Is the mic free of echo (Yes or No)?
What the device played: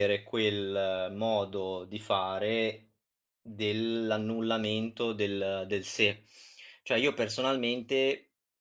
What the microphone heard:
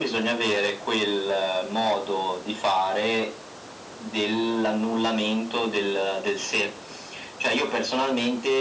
No